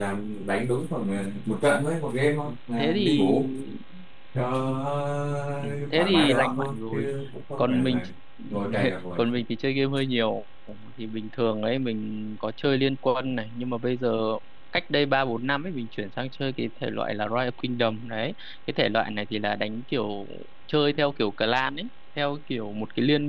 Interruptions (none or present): present